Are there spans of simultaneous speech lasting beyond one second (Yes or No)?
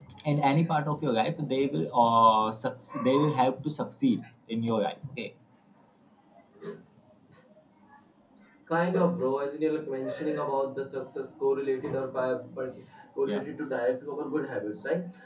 No